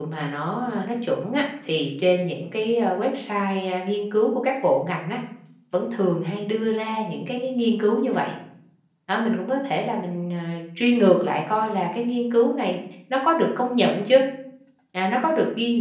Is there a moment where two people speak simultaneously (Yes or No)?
No